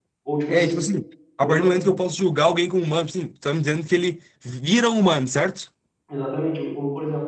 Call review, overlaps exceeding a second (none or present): none